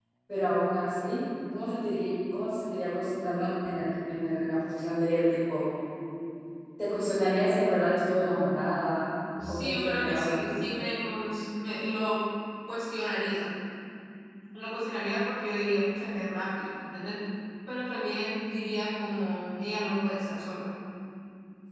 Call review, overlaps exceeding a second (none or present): present